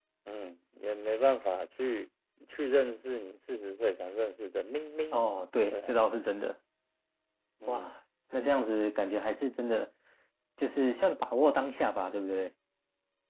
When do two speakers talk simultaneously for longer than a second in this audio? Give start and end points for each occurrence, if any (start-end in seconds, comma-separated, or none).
none